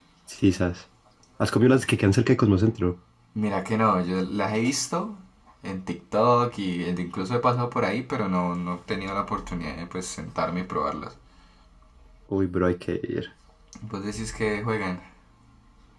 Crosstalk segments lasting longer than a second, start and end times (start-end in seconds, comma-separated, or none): none